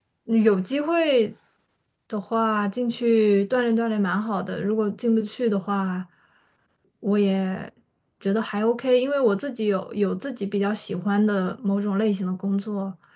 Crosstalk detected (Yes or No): No